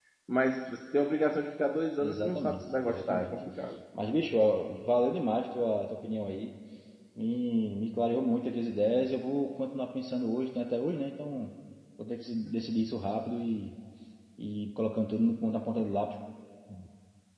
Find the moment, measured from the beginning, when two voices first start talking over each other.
2.0 s

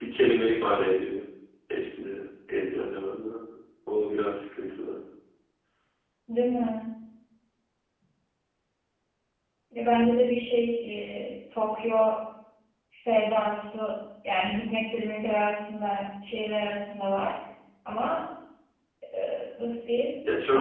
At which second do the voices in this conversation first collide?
none

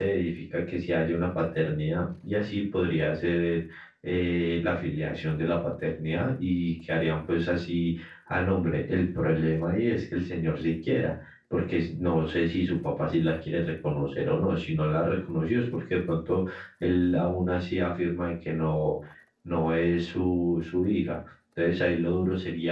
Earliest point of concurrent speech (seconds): none

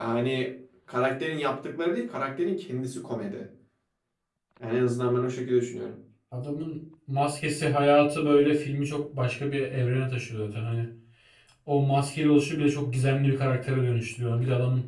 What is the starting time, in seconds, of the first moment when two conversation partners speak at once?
none

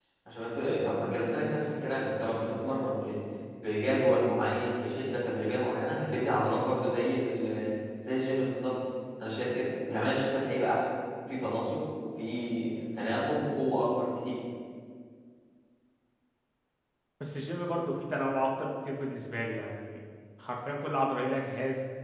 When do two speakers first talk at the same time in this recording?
none

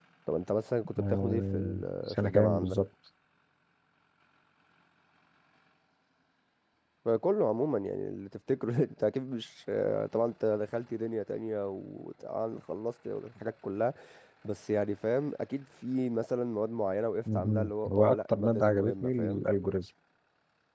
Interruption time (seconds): 1.0 s

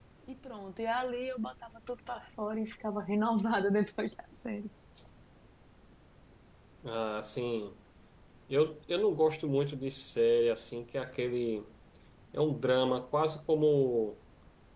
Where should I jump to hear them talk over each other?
none

